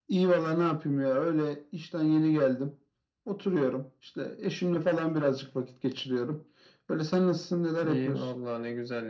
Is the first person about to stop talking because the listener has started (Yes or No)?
Yes